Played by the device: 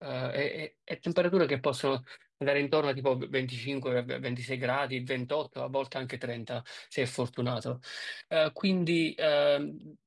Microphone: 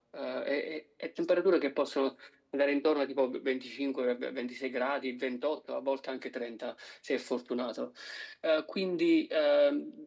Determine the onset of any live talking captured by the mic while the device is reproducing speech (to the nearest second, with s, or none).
none